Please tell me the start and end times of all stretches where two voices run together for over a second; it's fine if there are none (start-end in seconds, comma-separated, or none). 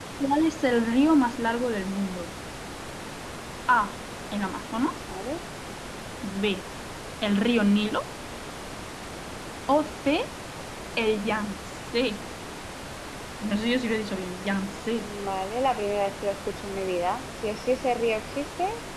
none